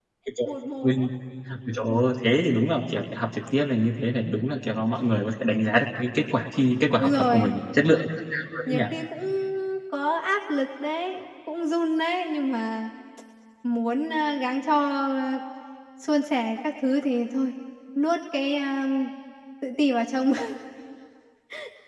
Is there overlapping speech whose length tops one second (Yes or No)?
No